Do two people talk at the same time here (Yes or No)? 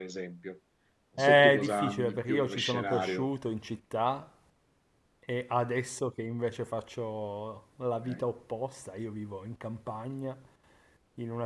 Yes